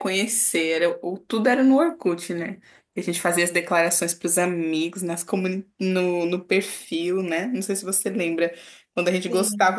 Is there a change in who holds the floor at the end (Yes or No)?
No